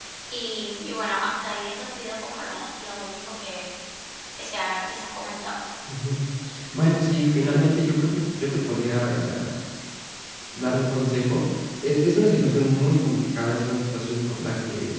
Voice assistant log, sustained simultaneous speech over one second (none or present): none